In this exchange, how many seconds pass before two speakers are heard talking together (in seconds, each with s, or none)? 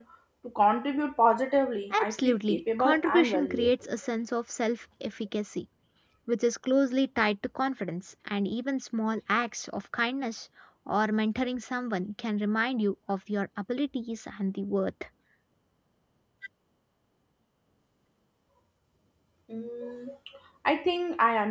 1.9 s